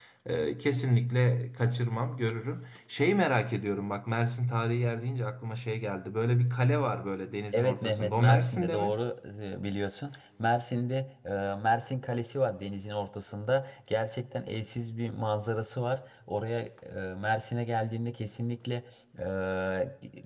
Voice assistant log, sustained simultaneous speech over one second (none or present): present